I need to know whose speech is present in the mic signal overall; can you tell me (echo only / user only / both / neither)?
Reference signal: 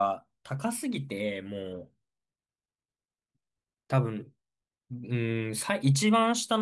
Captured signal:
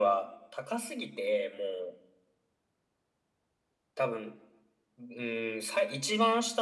echo only